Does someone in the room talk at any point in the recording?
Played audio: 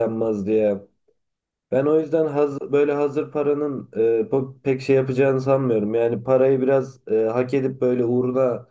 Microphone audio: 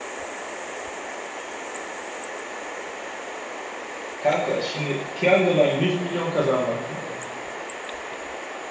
Yes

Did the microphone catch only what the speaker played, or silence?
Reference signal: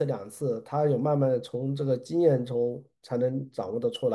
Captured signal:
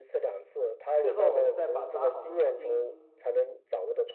No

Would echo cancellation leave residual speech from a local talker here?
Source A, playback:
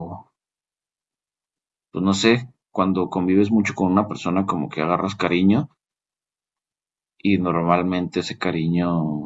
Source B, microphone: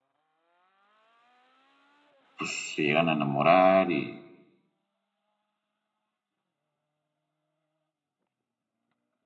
Yes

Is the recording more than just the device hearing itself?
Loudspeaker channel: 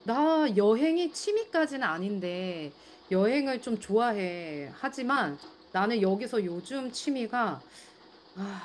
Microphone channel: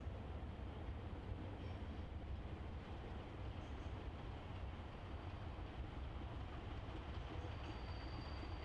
No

